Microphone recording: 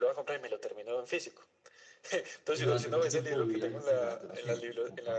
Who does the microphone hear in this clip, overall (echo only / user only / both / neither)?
both